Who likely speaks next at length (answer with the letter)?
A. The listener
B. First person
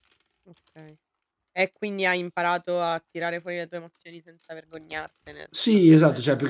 A